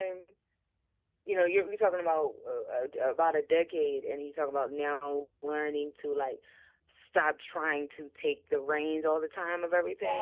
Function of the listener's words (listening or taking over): listening